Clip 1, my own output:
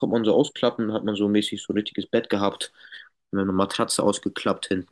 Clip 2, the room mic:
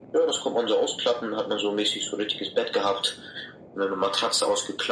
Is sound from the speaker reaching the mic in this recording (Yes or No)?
Yes